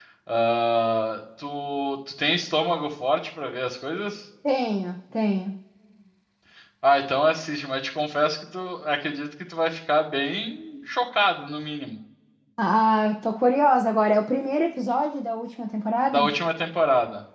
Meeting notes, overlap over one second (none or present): none